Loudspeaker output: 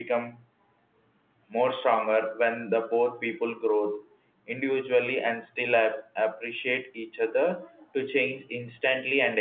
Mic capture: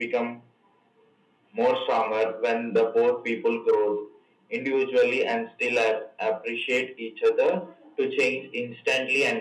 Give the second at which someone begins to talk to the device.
none

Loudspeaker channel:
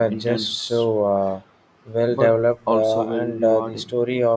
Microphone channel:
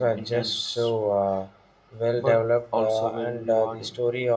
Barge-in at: none

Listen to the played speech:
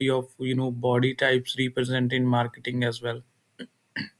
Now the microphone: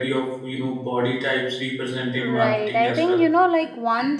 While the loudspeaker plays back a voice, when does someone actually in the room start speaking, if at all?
2 s

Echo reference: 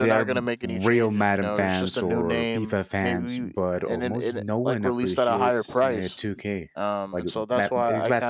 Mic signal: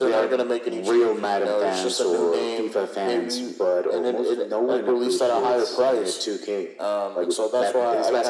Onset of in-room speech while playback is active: none

